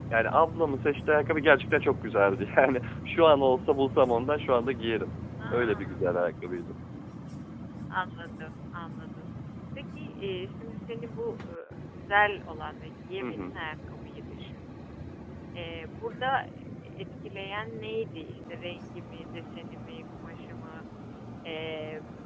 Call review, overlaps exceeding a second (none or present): none